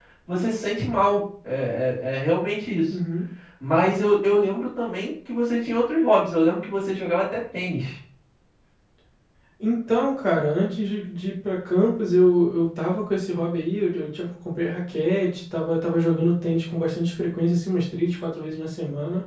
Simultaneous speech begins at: none

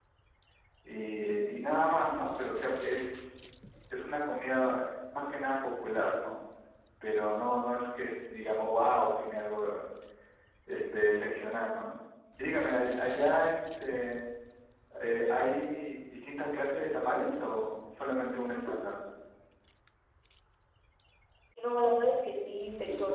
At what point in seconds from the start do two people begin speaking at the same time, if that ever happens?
none

